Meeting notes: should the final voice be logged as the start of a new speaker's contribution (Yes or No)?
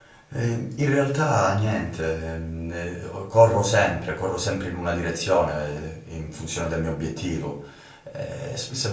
No